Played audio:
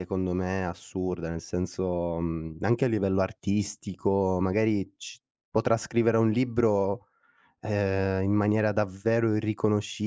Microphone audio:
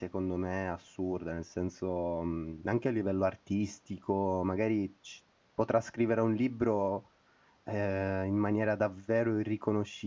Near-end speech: none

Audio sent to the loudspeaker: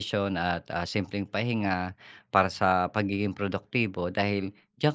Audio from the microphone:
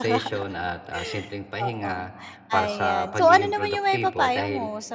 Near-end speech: present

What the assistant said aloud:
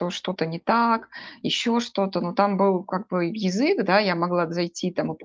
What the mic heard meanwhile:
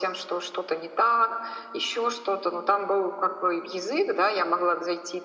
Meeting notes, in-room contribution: none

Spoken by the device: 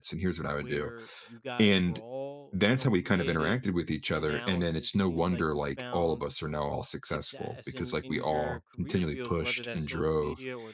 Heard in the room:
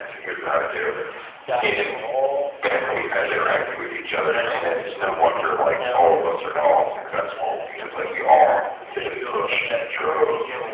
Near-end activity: none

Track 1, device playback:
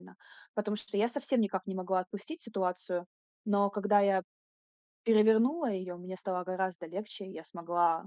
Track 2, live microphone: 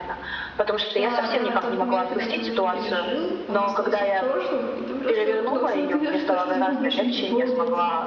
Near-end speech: present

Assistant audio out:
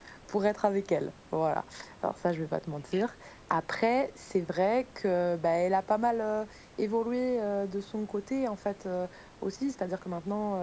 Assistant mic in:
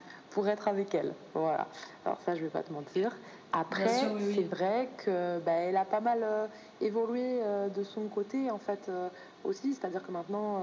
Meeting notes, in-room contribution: present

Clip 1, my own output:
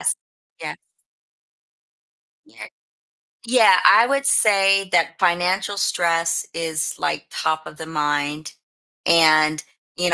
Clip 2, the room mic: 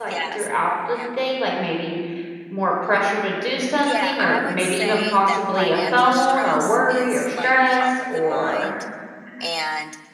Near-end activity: present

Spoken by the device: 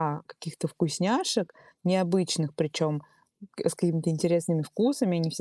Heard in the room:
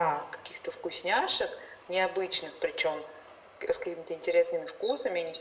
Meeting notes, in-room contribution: none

